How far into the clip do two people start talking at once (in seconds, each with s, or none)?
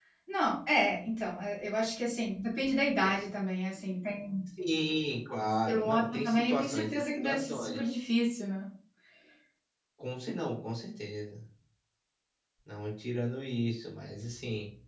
5.7 s